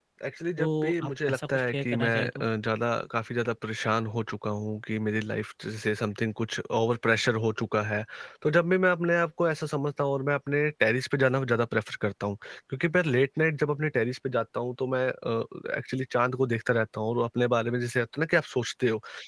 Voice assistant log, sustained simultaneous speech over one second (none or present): present